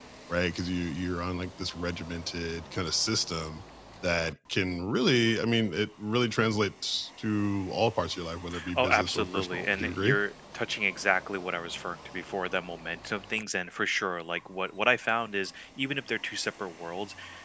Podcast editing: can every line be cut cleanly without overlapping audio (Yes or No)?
No